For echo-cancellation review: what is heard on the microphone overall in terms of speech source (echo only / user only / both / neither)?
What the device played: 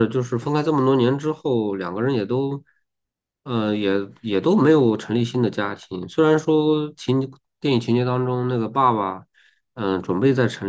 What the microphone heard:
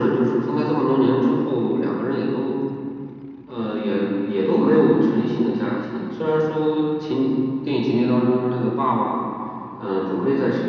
echo only